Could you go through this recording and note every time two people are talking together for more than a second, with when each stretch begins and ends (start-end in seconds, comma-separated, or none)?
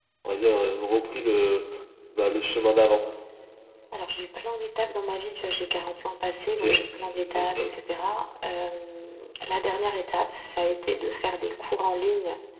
none